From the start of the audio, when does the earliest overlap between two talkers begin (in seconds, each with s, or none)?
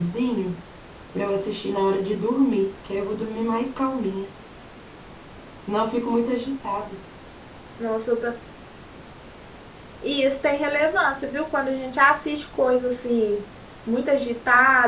none